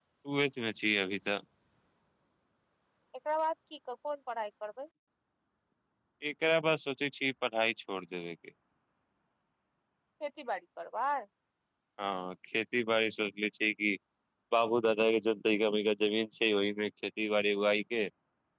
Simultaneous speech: No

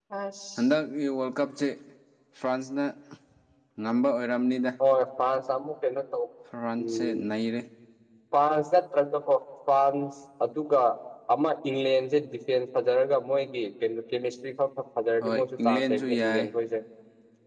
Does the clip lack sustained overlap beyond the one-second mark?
No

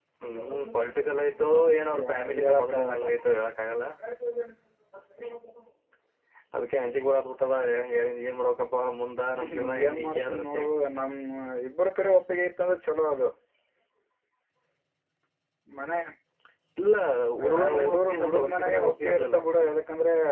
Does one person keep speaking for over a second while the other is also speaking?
Yes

